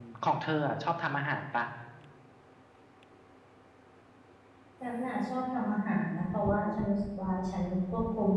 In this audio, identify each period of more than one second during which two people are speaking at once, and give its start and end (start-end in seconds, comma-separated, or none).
none